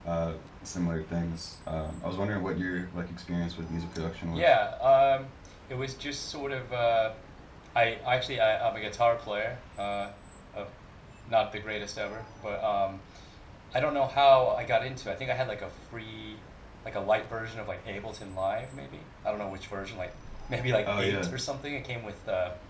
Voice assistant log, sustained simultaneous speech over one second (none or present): none